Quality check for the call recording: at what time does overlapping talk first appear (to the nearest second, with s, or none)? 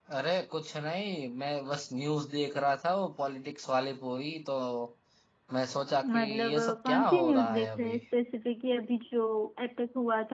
6 s